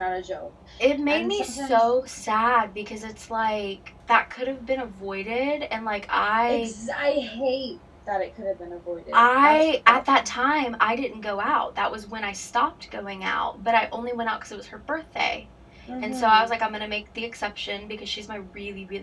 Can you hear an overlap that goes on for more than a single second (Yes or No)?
Yes